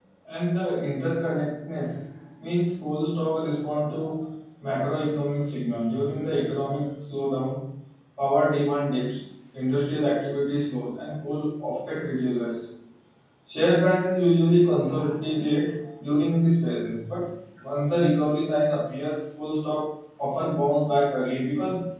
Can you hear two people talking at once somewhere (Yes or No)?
No